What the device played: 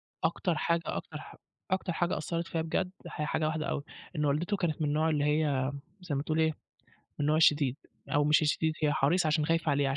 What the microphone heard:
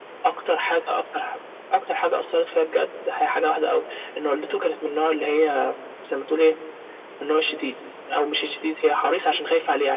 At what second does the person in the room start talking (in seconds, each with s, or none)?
none